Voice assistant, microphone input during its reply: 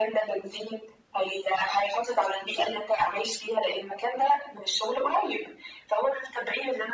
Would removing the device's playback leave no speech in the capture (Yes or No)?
Yes